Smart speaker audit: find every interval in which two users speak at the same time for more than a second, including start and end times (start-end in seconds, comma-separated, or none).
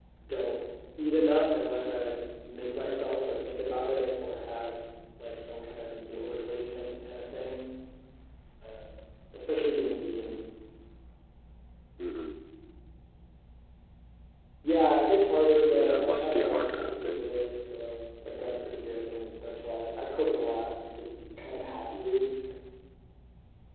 15.7-17.2